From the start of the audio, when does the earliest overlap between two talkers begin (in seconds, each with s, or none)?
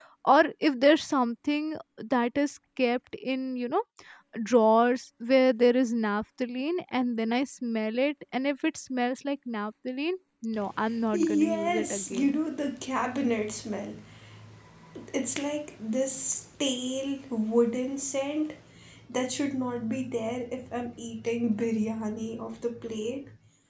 11.1 s